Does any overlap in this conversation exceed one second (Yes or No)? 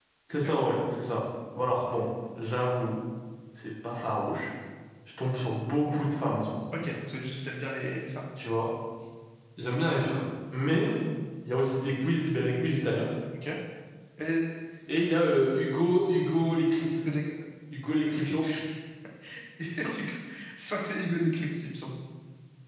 No